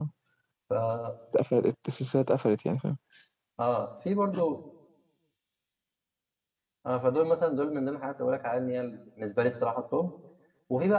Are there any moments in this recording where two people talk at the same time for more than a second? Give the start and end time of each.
none

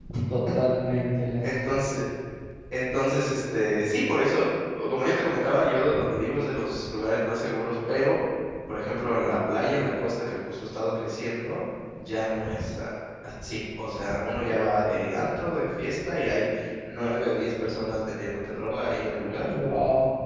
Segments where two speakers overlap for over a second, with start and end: none

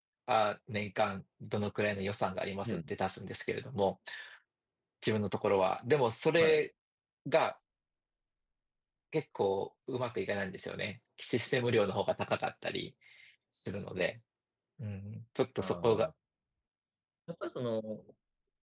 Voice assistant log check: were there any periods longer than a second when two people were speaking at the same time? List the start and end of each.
none

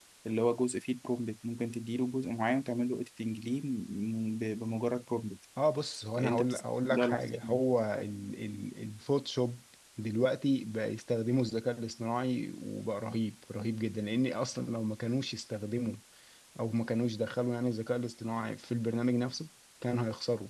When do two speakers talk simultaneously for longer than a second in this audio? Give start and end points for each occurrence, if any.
6.2-7.6

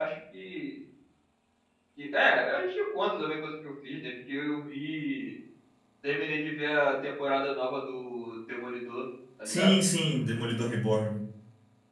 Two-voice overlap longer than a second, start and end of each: none

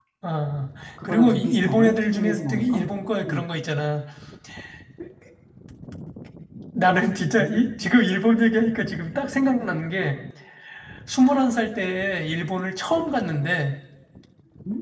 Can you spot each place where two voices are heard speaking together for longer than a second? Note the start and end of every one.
1.0-2.8

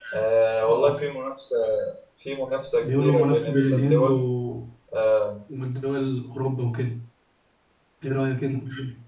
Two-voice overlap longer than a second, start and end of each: 2.8-4.2

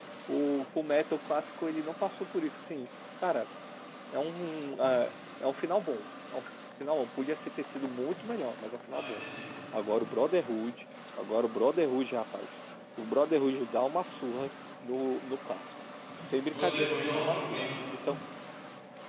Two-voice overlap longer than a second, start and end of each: 16.4-17.7

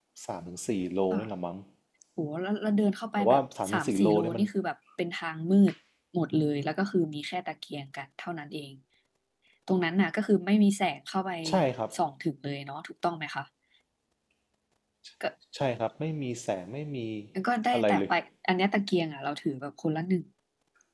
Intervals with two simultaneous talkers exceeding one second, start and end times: 3.2-4.4

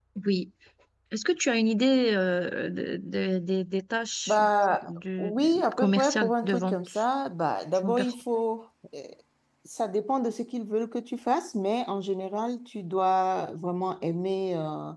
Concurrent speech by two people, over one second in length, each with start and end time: 4.8-7.0

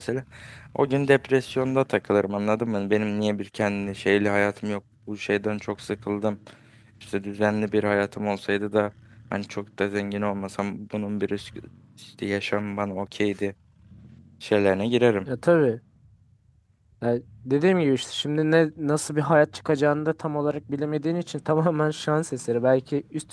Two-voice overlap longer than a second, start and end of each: none

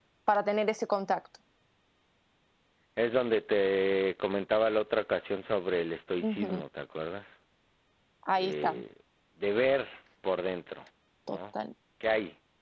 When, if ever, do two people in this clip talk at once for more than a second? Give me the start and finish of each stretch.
none

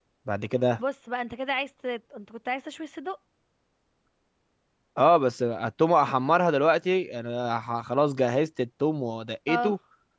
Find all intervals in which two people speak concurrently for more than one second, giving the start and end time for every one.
none

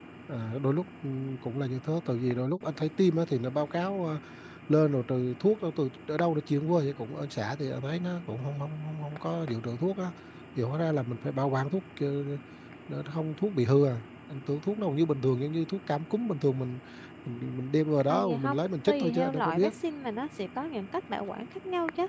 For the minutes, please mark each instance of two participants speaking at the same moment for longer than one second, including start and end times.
18.1-19.7

